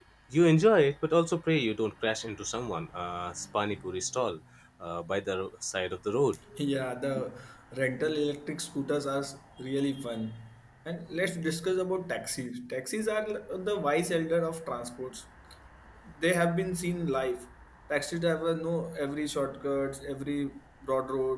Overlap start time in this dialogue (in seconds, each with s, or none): none